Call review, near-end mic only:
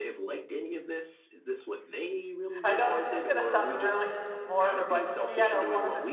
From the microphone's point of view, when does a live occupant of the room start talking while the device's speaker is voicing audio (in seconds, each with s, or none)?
2.6 s